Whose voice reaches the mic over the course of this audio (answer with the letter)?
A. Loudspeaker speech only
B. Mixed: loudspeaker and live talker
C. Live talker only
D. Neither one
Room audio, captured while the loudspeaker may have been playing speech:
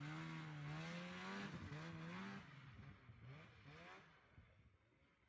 D